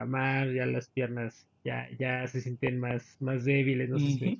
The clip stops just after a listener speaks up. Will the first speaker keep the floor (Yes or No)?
No